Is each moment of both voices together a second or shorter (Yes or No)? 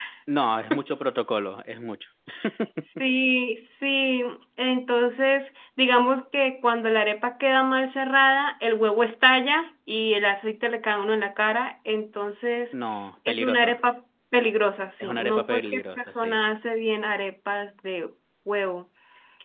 No